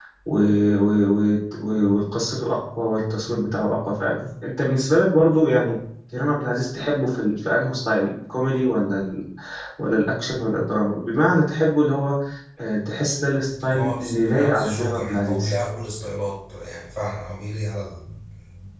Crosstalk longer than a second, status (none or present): present